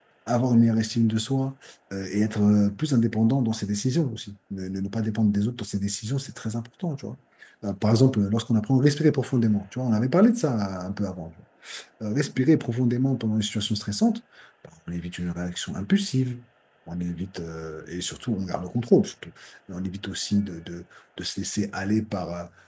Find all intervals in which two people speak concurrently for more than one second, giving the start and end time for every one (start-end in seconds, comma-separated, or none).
none